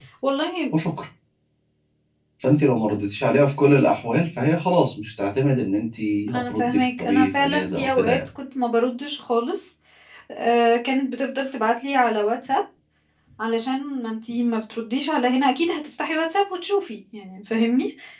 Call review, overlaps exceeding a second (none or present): present